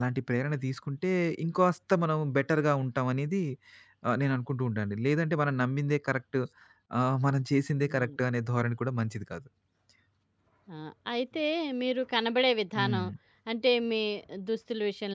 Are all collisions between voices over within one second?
Yes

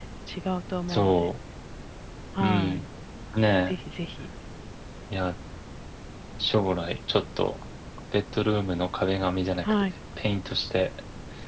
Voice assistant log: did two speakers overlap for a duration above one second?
No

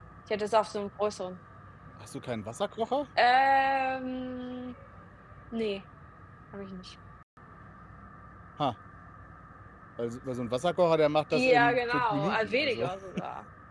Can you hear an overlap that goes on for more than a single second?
Yes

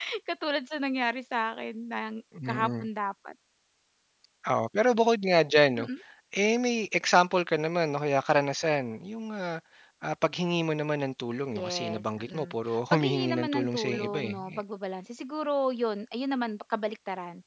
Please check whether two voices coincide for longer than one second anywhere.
Yes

